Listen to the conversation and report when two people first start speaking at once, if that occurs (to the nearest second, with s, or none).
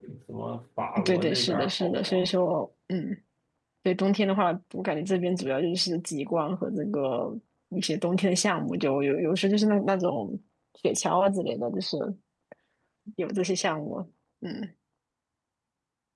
1 s